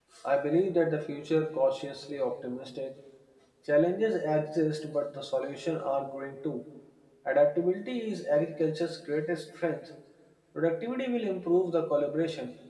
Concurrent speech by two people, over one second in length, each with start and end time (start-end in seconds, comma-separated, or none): none